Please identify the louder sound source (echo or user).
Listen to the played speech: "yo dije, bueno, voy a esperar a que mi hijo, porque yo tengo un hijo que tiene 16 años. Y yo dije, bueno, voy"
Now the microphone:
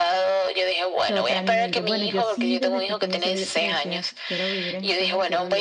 echo